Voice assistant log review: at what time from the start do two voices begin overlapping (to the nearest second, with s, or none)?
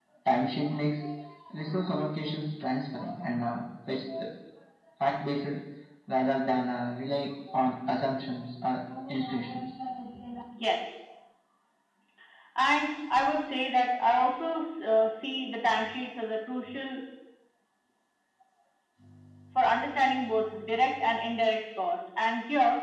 none